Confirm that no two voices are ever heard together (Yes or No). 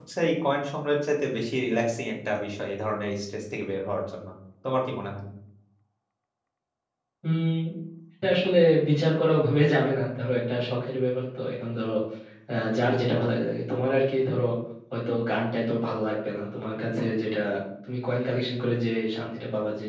Yes